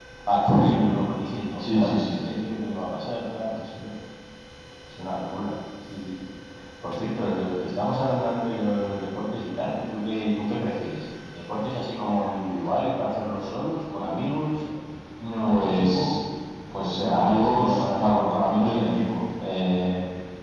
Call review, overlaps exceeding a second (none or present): present